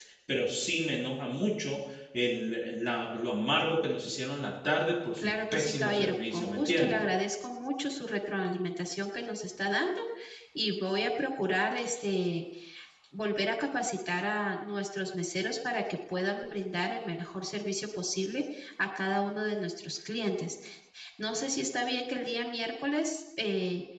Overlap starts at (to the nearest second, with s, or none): 5 s